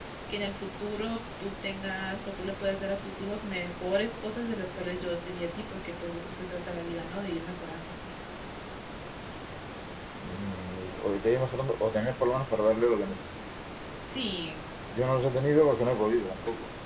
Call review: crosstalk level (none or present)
none